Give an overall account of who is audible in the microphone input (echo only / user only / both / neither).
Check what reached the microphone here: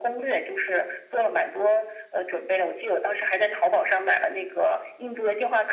echo only